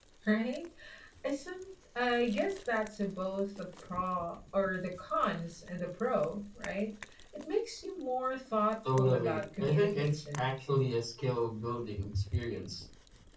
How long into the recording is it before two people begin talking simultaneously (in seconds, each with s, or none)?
9.0 s